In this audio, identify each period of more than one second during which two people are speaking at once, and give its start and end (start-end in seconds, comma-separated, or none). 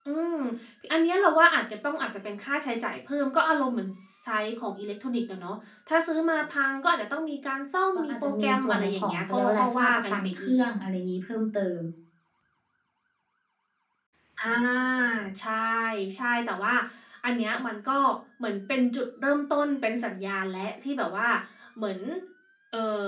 8.0-10.7